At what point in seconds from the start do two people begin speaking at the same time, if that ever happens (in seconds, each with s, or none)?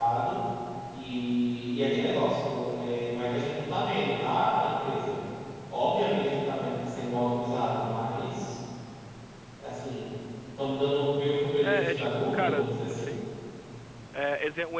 11.6 s